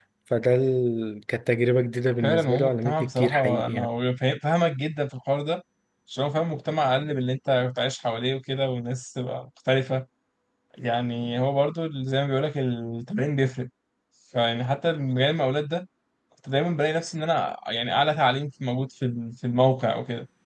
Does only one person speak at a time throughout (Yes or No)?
No